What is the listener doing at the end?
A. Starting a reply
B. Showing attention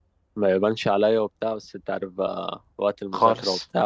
B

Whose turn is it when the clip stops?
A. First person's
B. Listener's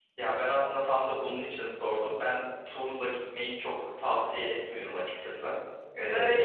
A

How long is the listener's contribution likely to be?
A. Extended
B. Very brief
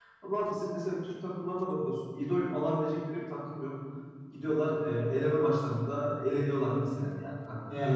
B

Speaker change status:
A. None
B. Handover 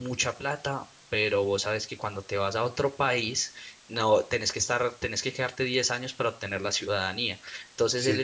A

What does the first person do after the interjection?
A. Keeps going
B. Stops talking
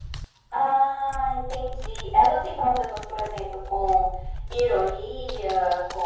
B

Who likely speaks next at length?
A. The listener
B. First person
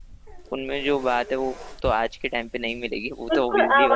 A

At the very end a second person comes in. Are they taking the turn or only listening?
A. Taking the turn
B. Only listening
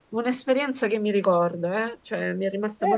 A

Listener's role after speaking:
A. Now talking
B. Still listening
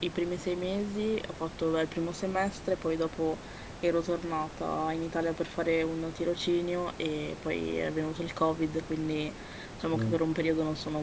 B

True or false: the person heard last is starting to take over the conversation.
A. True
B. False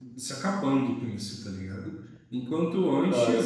B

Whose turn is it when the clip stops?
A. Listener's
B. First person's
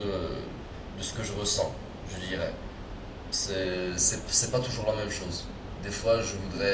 B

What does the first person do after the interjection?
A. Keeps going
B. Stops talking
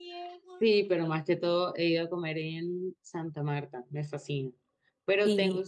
A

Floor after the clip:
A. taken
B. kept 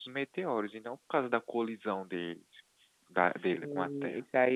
A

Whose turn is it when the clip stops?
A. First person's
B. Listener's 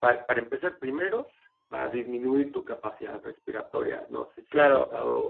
B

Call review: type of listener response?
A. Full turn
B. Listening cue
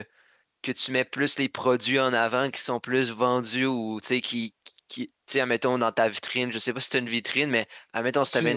B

